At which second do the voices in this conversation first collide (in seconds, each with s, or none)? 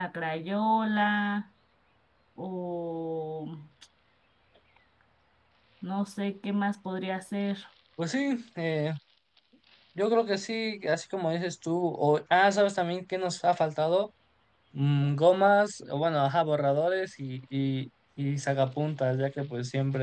none